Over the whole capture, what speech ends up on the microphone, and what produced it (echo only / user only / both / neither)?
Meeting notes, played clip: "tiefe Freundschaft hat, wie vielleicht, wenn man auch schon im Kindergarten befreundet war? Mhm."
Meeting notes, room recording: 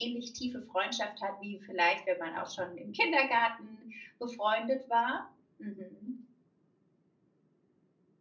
echo only